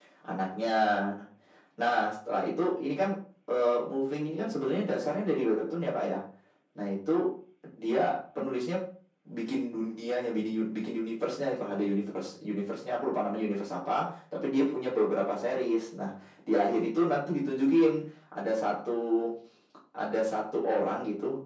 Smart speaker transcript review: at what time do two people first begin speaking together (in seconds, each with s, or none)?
none